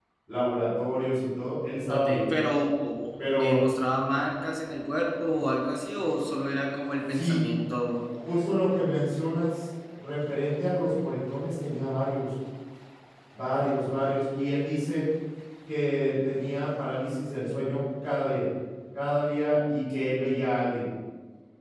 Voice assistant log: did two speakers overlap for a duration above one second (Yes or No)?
No